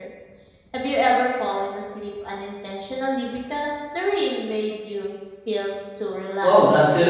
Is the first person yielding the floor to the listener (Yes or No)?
Yes